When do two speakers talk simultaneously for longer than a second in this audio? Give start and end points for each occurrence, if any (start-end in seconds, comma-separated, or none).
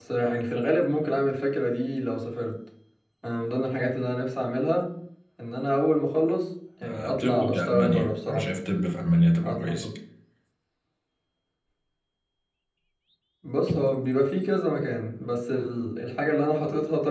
6.8-8.5